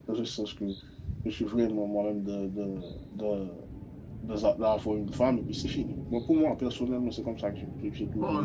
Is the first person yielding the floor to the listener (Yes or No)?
Yes